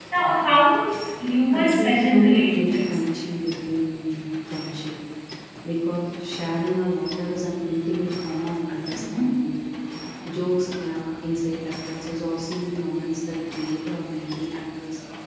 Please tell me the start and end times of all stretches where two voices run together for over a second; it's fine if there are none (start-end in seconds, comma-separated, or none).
1.5-3.0